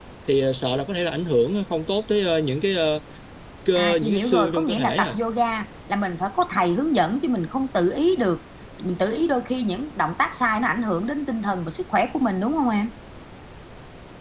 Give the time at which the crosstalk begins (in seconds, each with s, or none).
3.7 s